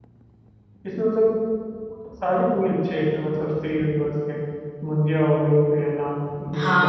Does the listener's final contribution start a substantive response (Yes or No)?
Yes